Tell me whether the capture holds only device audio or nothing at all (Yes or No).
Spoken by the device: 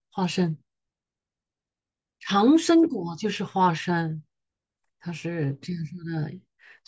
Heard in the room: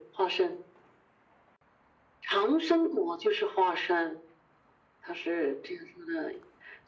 Yes